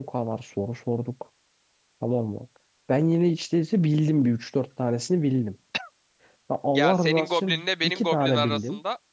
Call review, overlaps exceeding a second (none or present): present